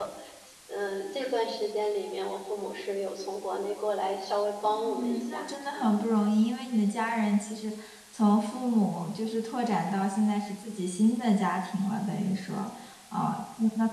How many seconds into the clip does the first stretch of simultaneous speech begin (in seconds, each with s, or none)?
4.6 s